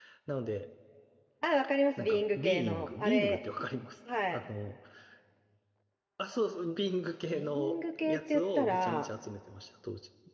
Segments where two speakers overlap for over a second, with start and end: 2.0-3.4, 7.3-9.1

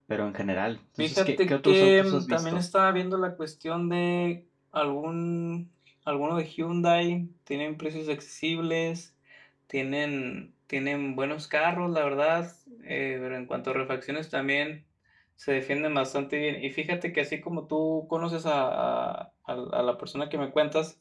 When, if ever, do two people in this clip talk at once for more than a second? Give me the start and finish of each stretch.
1.0-2.6

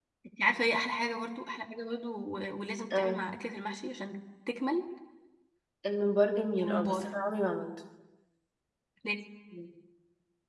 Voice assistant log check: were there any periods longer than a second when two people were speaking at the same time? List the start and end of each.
none

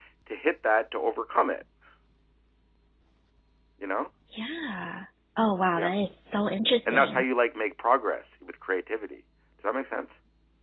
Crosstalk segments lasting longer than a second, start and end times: none

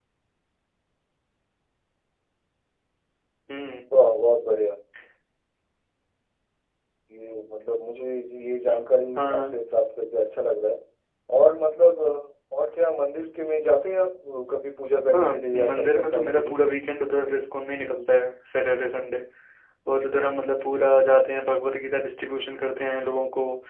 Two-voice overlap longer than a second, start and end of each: 15.1-16.6

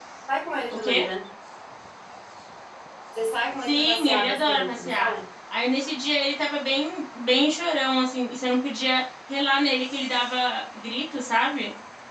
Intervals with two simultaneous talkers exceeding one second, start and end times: 3.6-5.1

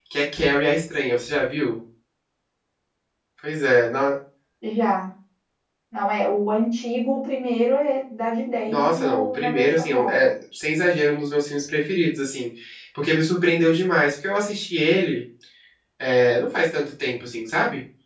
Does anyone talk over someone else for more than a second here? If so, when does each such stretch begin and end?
8.7-10.3

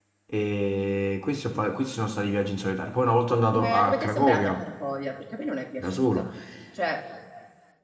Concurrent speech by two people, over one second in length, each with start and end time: 3.3-4.5

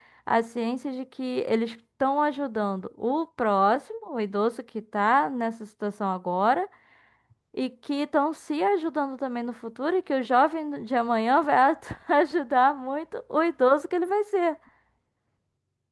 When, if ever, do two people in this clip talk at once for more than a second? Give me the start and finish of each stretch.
none

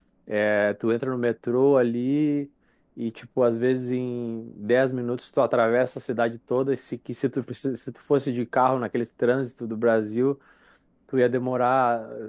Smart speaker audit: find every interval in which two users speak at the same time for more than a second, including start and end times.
none

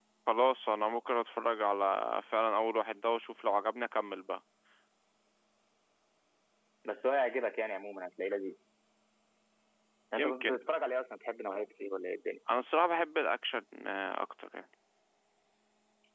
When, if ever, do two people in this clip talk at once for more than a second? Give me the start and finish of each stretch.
none

